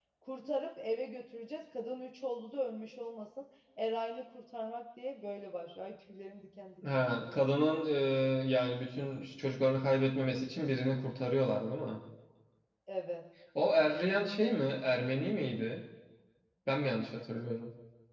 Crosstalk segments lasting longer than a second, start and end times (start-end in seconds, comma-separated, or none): none